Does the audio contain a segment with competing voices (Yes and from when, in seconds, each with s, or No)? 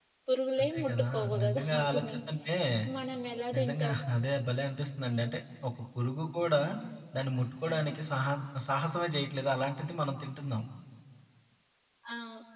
Yes, from 0.6 s